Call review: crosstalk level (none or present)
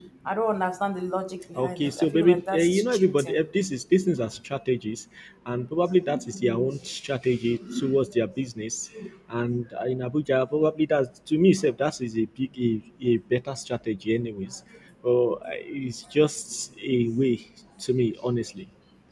present